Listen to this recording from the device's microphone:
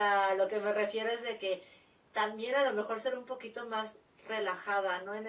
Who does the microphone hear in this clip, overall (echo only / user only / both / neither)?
echo only